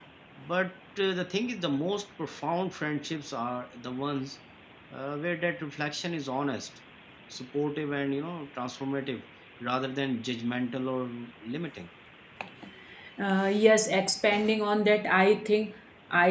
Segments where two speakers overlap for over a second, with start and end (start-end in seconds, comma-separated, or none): none